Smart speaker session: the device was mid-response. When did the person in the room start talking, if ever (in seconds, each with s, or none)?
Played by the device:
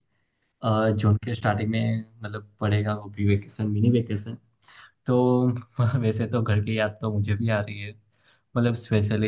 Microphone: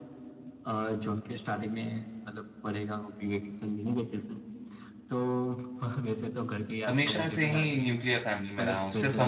6.9 s